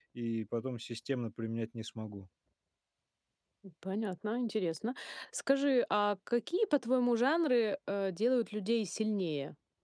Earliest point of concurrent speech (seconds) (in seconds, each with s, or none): none